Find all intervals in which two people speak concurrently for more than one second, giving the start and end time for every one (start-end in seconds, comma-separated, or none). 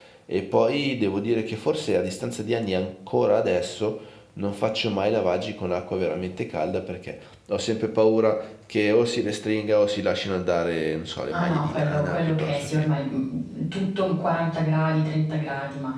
11.3-12.9